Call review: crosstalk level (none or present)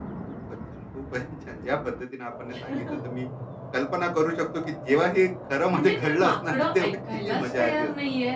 present